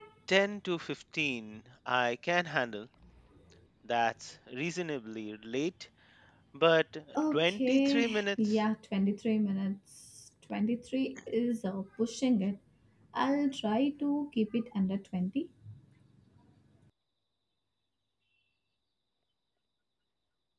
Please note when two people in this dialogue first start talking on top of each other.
7.3 s

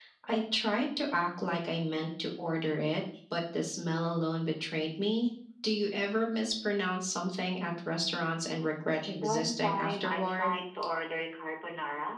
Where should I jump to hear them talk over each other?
9.2 s

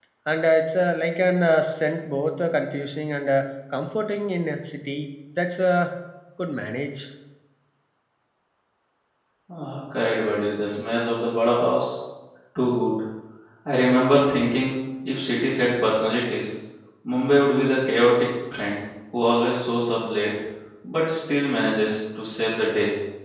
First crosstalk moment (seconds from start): none

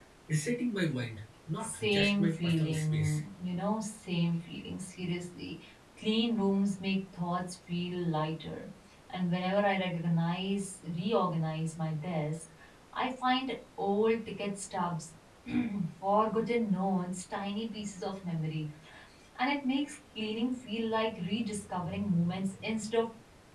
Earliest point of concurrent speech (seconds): 1.6 s

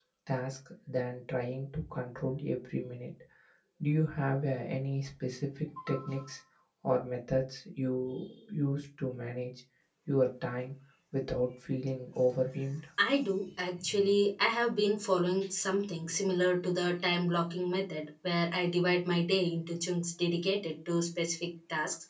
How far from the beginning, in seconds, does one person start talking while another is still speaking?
none

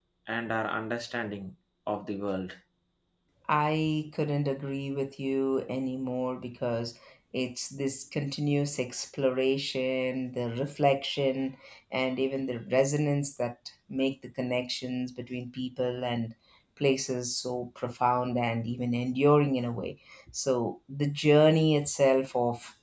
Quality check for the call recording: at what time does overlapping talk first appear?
none

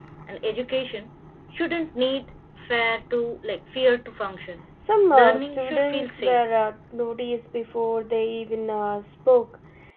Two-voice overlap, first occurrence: 5.1 s

